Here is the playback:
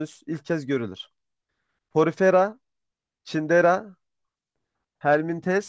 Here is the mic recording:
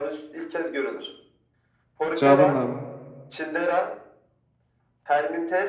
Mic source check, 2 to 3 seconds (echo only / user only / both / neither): both